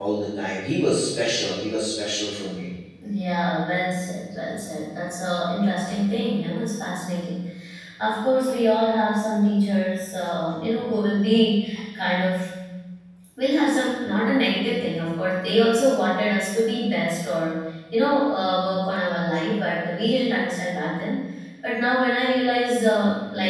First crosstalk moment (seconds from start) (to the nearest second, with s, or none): none